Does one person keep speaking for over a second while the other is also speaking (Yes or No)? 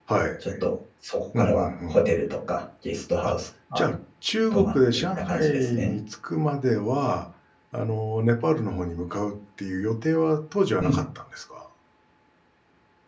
Yes